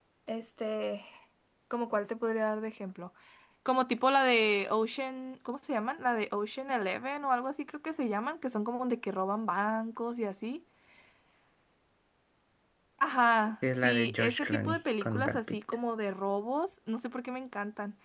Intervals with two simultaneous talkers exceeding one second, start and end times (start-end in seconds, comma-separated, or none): 13.8-15.6